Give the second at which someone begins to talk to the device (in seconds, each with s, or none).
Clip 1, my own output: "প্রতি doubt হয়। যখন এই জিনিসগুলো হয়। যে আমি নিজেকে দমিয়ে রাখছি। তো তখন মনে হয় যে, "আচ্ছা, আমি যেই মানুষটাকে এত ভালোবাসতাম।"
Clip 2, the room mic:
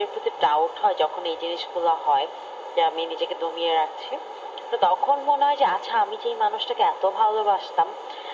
none